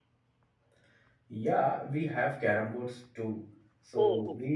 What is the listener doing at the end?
listening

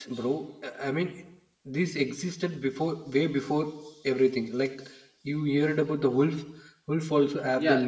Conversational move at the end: taking over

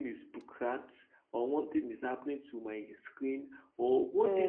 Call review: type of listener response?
listening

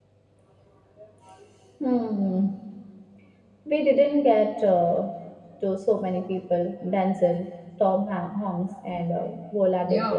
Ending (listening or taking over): taking over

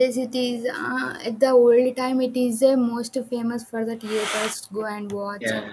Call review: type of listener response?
listening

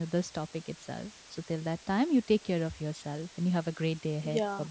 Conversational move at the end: taking over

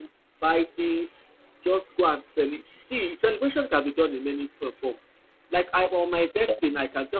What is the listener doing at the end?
listening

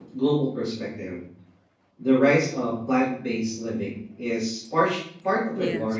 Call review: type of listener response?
listening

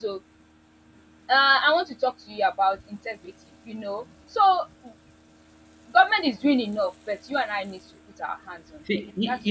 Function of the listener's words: taking over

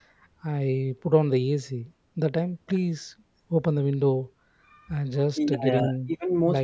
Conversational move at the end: taking over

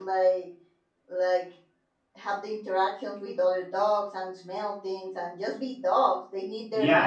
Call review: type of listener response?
taking over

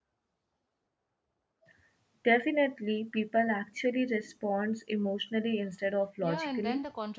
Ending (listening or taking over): taking over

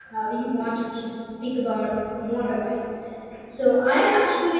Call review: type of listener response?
listening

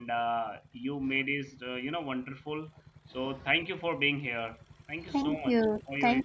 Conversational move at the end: taking over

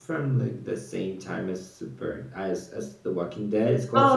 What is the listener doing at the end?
taking over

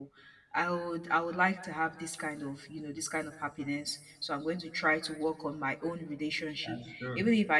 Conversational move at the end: listening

